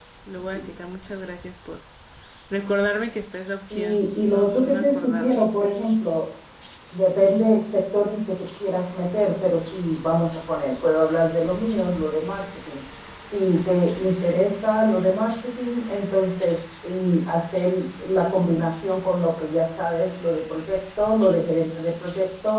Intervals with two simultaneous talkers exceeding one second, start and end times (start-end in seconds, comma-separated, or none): 3.7-5.4